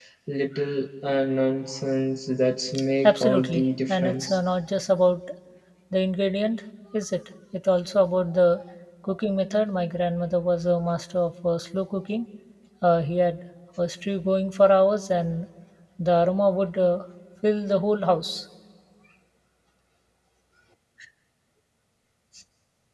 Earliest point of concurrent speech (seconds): 3.0 s

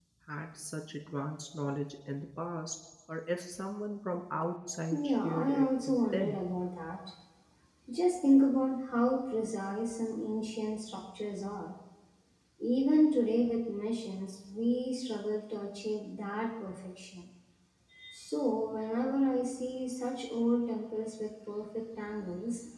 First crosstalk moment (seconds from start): 4.9 s

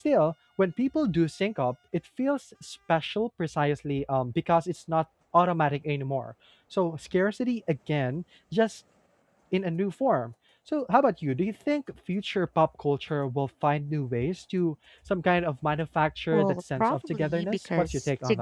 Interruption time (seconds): 16.3 s

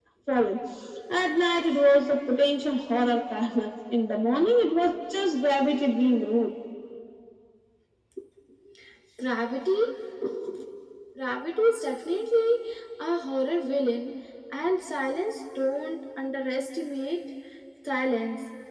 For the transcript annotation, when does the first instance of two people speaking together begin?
none

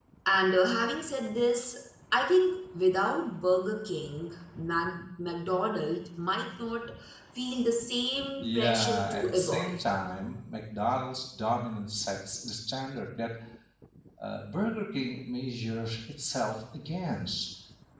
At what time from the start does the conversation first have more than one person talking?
8.4 s

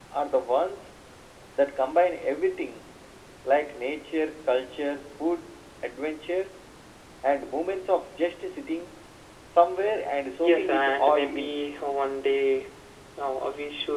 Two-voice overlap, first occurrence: 10.4 s

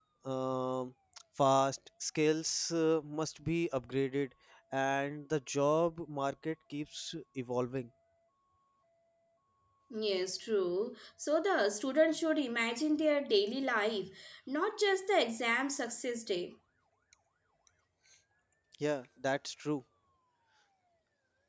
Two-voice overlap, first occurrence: none

